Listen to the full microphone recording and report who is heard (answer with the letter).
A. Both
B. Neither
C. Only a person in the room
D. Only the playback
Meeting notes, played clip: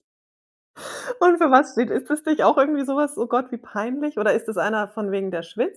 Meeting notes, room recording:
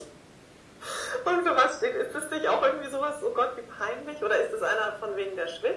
D